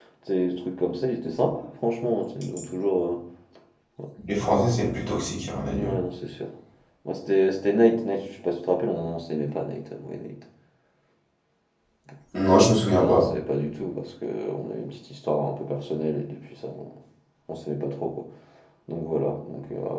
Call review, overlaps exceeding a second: none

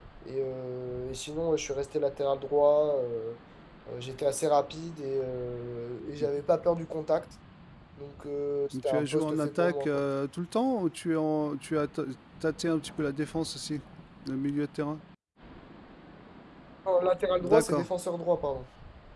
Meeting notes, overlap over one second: present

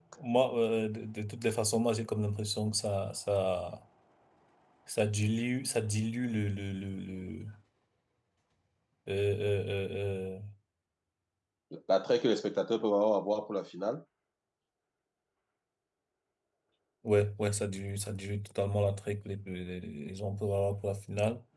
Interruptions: none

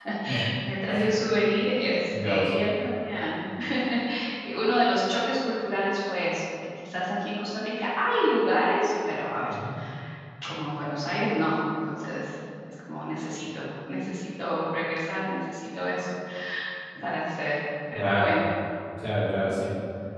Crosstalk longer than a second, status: none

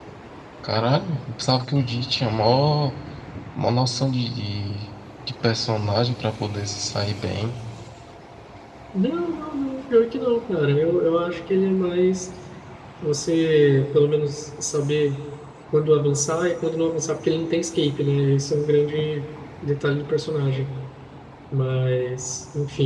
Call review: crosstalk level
none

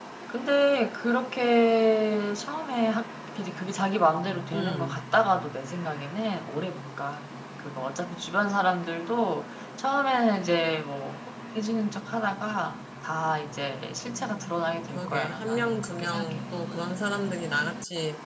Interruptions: present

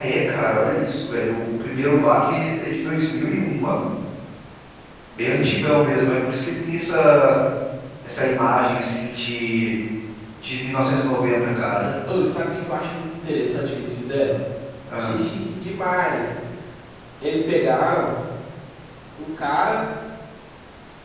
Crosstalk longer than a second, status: none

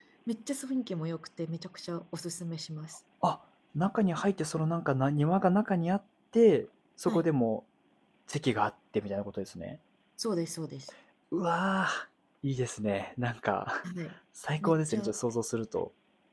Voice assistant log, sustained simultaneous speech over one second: none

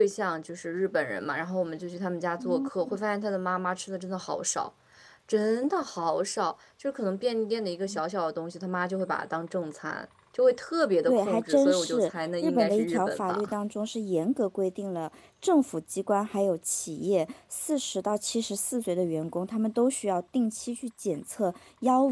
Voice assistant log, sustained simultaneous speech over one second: present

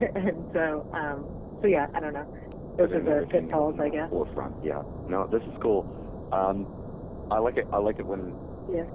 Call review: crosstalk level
present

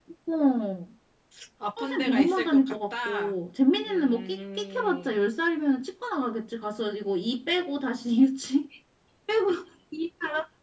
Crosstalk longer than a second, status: present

